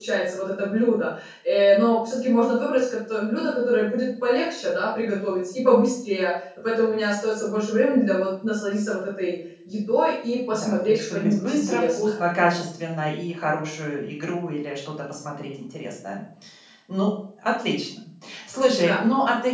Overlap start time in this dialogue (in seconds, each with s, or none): 10.5 s